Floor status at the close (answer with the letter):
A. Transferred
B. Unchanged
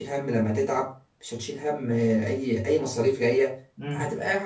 A